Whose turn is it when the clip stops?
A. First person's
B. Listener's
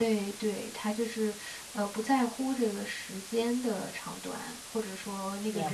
A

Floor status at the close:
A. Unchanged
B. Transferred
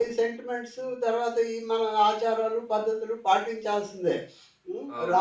B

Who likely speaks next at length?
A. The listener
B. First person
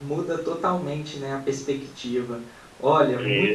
B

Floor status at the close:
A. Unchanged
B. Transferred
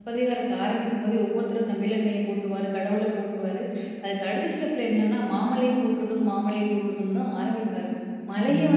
A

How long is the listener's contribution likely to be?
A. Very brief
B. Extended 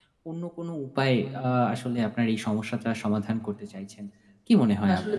B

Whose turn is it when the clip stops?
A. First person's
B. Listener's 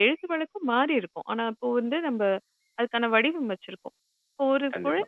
A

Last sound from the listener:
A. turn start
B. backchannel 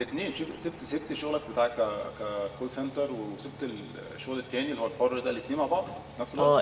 A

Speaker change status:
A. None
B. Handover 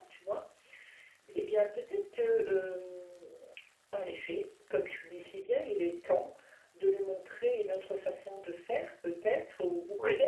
A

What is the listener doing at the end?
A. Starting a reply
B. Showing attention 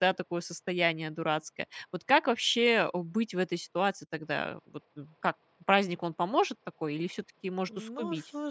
A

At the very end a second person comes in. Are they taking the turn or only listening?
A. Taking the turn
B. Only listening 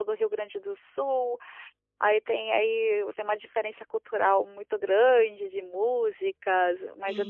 B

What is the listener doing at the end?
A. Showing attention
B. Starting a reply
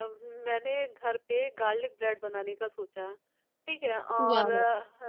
A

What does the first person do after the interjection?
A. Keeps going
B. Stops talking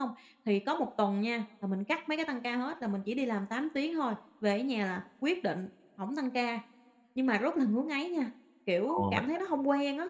A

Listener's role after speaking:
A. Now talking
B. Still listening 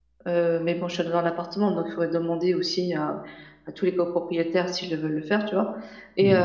B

